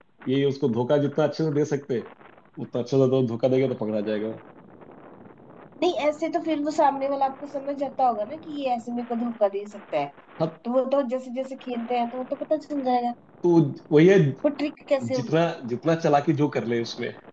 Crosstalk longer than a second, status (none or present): none